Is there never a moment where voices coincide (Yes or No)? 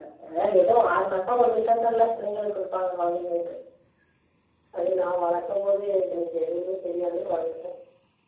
Yes